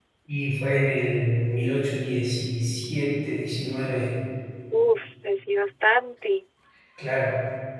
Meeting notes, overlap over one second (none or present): none